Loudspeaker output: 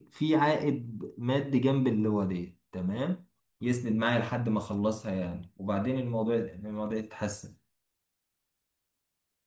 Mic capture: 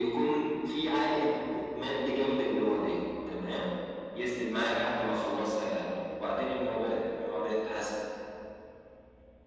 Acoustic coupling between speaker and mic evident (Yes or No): Yes